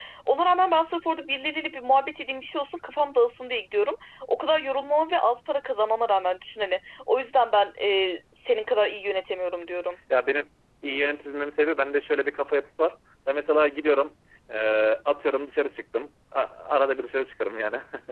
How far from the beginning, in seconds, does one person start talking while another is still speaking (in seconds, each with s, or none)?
none